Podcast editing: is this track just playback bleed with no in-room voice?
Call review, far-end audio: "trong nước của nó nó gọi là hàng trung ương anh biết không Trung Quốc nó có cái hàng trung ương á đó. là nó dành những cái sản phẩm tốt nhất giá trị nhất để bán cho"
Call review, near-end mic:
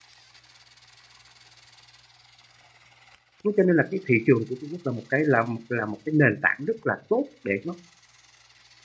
No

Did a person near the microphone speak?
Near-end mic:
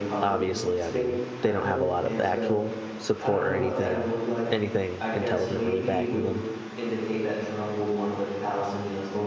Yes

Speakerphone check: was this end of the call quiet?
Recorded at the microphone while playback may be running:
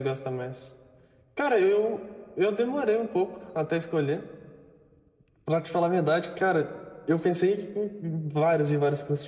Yes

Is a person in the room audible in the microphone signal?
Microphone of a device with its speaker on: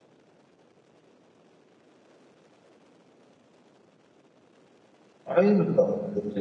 Yes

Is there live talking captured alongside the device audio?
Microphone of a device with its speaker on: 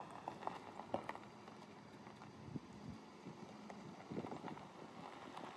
No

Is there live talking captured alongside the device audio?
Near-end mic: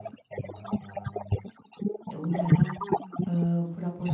Yes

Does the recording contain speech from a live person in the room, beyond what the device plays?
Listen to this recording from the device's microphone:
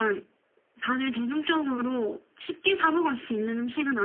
No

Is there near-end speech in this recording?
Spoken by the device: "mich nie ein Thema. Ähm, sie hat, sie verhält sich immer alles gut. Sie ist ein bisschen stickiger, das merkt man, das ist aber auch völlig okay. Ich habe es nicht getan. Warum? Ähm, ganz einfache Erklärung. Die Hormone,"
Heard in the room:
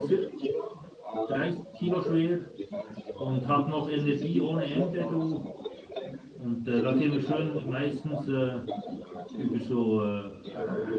Yes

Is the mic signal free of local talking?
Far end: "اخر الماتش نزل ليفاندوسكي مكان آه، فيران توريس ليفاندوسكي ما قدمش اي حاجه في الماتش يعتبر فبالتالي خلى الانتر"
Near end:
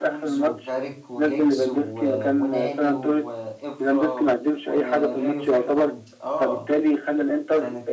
No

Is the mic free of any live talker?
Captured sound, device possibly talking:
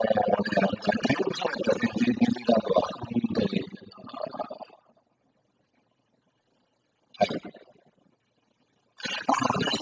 Yes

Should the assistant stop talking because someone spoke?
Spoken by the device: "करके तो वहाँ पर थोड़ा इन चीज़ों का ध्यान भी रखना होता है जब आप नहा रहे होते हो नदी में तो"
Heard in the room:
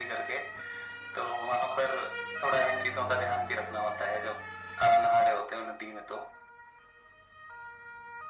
No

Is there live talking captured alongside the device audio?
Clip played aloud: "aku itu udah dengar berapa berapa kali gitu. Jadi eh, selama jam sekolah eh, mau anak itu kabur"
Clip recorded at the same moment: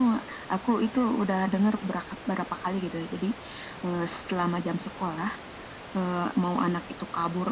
No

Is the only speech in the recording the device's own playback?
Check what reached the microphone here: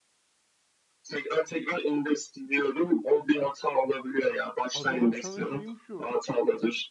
No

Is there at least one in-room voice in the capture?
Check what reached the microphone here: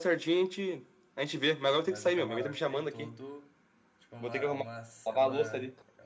Yes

